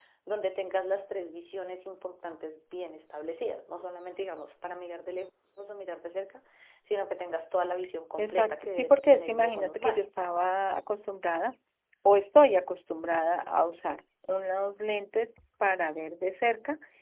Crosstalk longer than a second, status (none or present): present